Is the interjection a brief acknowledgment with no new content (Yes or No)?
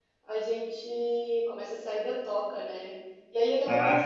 Yes